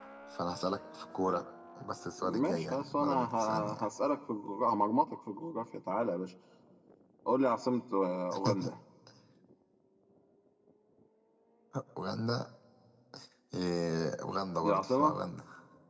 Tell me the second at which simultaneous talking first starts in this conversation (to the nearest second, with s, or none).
2 s